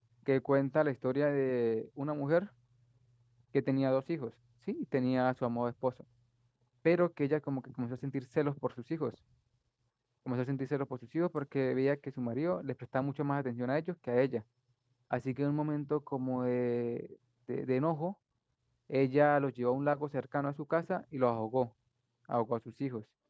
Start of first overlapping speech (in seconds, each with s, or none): none